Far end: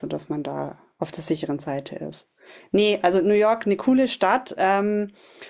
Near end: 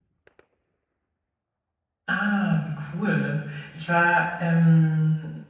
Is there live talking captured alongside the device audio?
Yes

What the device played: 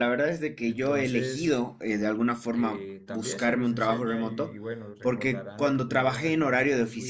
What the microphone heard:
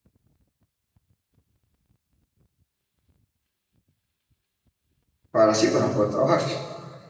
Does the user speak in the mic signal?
Yes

